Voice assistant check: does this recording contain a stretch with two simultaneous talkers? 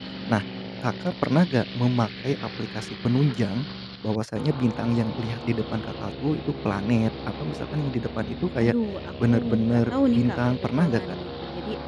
Yes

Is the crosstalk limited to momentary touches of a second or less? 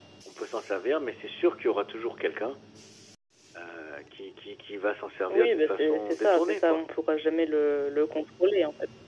No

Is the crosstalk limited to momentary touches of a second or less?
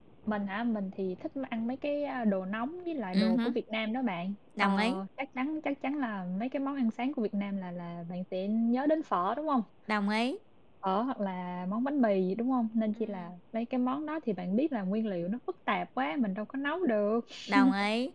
Yes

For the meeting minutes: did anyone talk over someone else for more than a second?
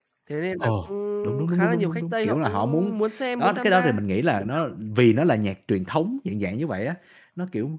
Yes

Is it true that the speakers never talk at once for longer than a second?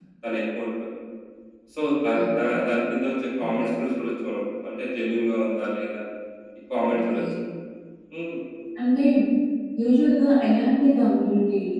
Yes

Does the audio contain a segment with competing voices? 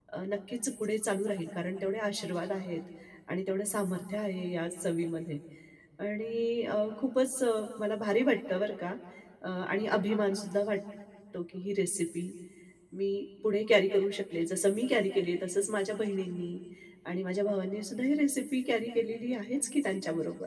No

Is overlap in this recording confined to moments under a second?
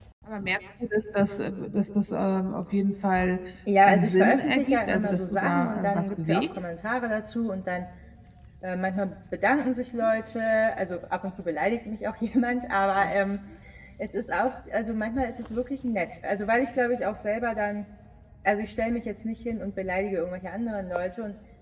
No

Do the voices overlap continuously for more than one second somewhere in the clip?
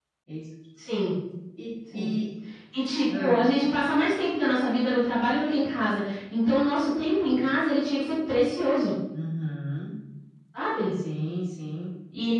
No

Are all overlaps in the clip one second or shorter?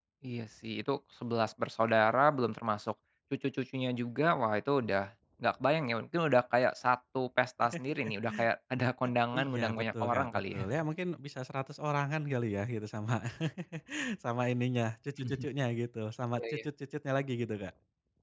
No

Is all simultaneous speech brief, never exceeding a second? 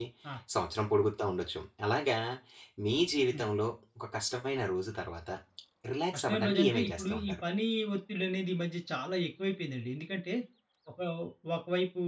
No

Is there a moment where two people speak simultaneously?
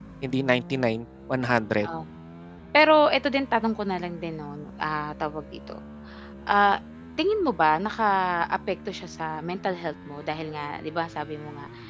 No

